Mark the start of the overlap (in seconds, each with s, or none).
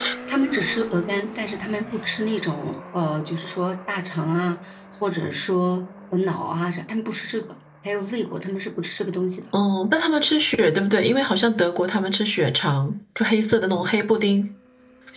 none